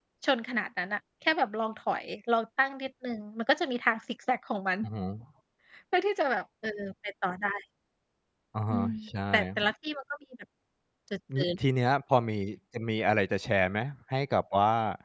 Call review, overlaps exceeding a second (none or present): none